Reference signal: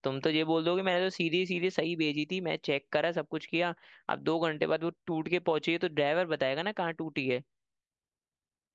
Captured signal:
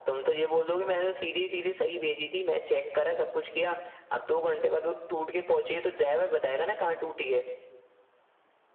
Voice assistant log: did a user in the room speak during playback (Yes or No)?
No